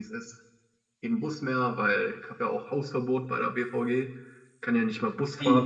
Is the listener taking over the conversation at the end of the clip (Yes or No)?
Yes